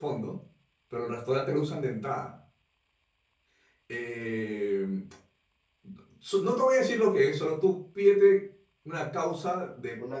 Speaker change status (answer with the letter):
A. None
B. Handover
A